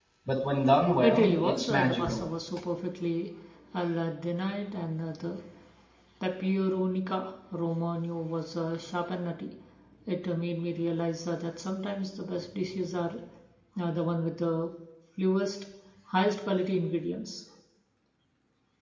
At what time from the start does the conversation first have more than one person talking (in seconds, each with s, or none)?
1.0 s